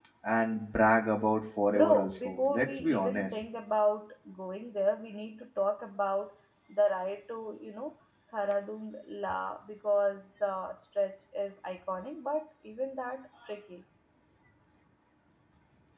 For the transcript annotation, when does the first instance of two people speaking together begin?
1.7 s

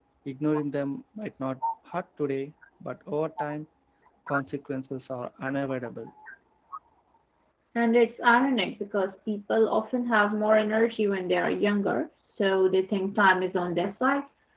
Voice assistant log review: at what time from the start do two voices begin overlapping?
none

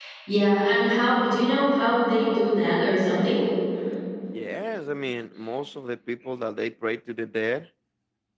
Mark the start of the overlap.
none

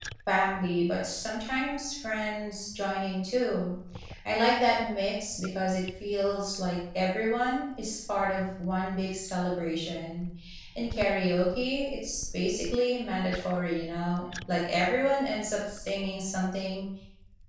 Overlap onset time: none

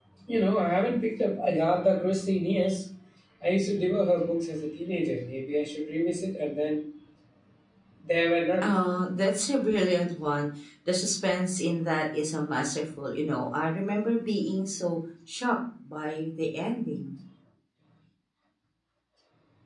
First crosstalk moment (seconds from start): none

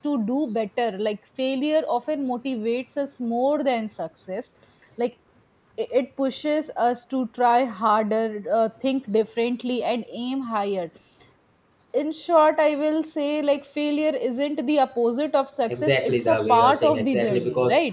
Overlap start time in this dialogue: 15.7 s

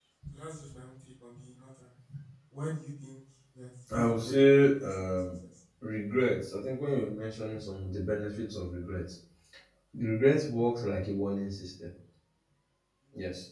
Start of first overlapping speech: 3.9 s

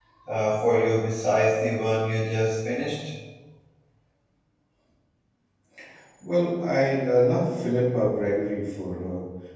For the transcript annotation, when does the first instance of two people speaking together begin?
none

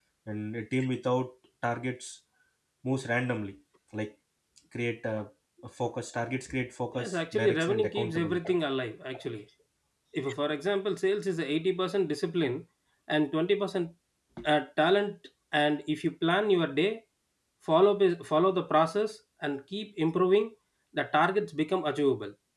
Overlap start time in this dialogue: 7.0 s

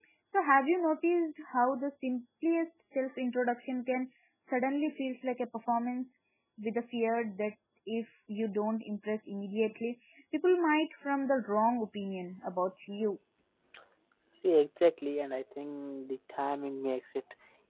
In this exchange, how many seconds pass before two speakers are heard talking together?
none

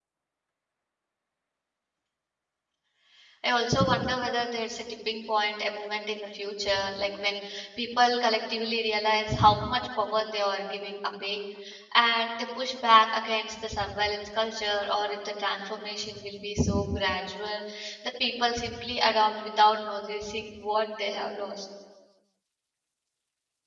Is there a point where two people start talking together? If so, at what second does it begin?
none

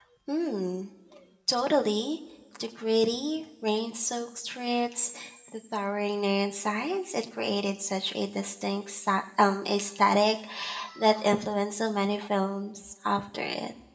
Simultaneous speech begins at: none

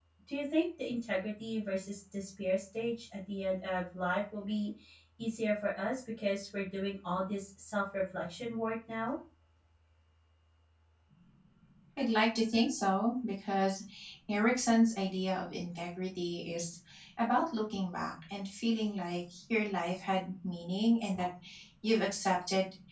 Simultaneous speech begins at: none

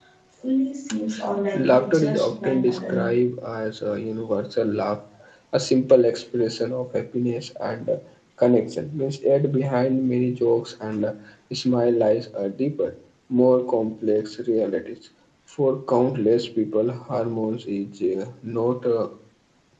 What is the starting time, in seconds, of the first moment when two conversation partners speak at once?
1.5 s

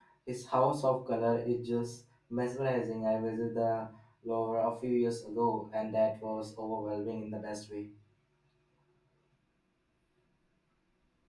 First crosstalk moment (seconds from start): none

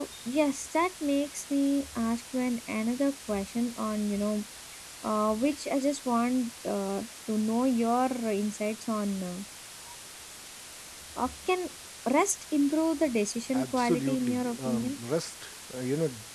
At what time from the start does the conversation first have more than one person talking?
13.5 s

